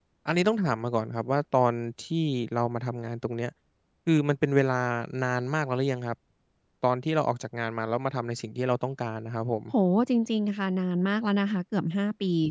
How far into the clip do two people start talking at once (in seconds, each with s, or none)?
none